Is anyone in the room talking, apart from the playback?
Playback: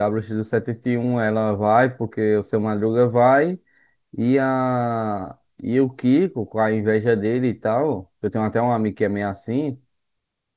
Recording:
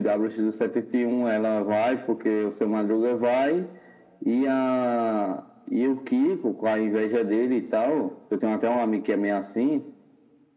No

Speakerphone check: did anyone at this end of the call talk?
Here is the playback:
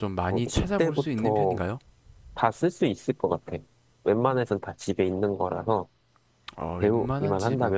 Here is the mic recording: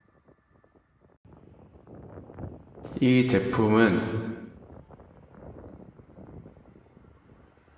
Yes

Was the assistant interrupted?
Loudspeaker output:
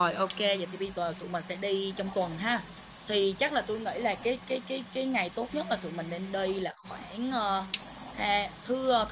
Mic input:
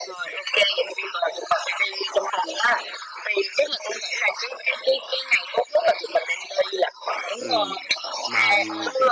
Yes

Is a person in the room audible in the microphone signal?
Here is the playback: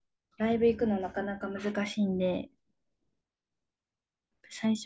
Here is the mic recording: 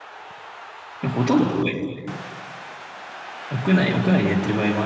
Yes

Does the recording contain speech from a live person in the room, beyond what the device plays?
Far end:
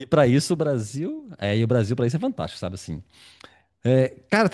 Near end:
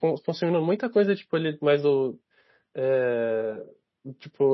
Yes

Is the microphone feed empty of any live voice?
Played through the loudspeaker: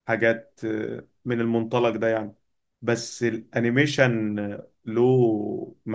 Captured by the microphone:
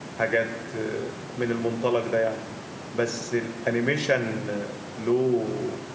Yes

